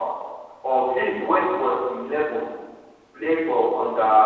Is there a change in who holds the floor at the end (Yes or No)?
No